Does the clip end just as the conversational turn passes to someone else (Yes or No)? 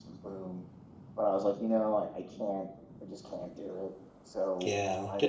Yes